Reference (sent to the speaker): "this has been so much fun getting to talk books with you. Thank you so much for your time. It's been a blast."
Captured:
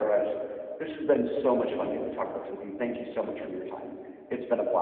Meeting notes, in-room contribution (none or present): none